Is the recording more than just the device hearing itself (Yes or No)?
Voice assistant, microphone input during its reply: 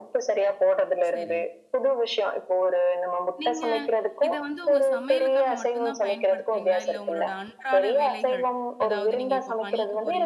Yes